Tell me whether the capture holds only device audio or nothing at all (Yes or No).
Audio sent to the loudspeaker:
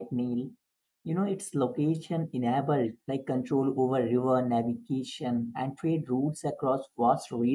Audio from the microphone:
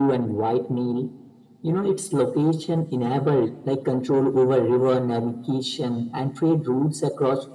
Yes